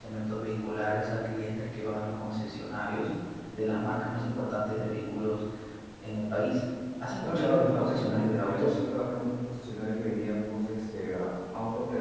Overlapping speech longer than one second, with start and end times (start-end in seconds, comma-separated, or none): 7.2-8.8